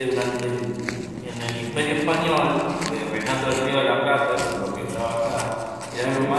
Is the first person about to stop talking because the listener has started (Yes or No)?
No